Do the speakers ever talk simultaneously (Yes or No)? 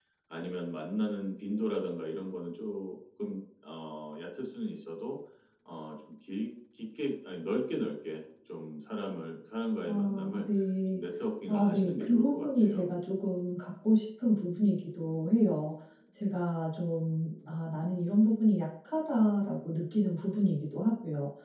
Yes